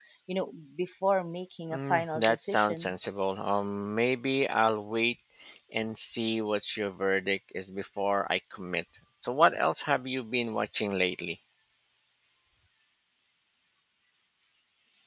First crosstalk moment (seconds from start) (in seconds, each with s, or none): 1.7 s